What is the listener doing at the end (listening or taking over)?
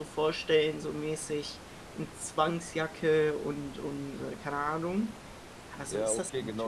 taking over